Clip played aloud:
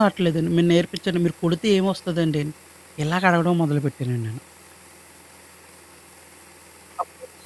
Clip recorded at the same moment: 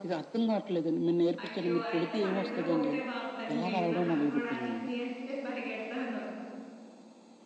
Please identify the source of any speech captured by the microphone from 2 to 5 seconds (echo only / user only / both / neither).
both